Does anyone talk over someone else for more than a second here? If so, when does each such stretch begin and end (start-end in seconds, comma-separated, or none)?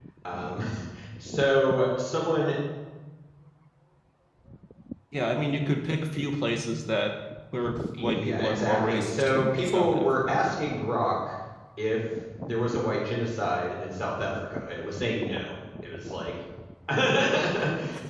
8.0-10.4